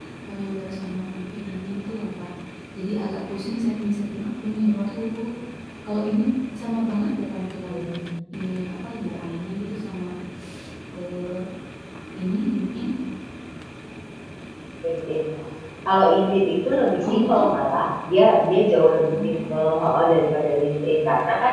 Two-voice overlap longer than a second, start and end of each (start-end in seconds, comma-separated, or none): none